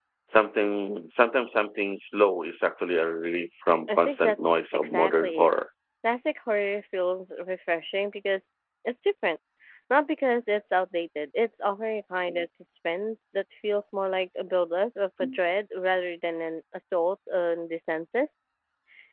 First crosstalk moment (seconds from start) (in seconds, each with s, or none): 3.9 s